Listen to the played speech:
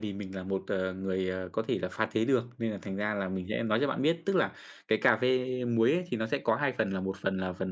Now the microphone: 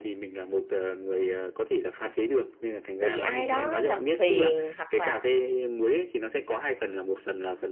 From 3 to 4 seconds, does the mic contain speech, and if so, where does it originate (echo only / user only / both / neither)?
both